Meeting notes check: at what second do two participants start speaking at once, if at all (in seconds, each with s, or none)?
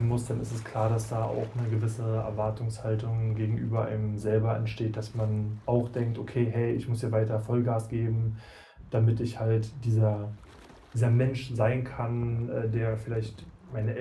none